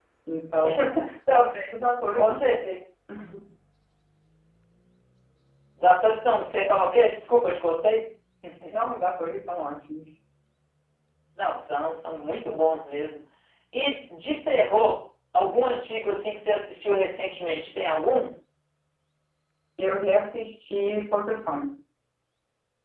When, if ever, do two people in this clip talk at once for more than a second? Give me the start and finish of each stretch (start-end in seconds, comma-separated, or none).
none